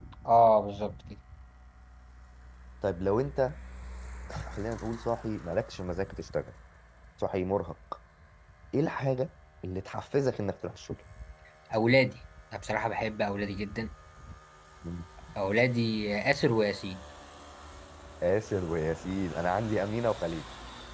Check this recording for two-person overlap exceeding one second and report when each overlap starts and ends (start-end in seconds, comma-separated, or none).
none